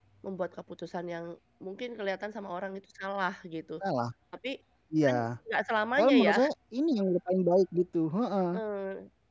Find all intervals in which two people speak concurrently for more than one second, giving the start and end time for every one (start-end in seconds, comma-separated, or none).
none